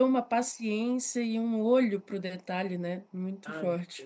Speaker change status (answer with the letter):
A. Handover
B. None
A